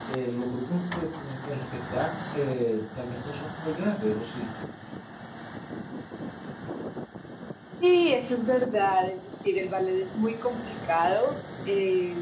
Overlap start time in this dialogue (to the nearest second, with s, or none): none